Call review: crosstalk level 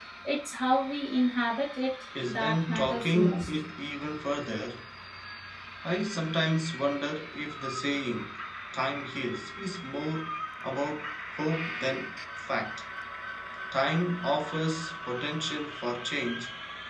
present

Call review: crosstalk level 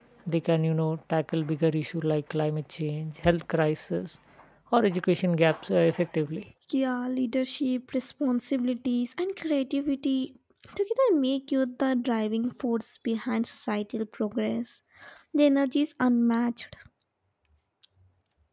none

